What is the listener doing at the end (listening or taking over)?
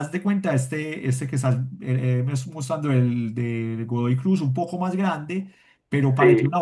listening